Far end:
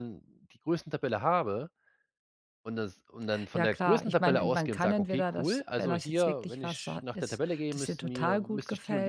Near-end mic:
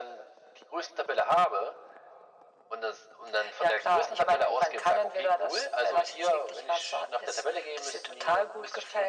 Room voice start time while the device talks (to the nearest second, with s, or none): none